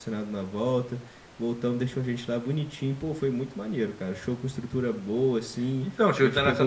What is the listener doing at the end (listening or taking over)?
taking over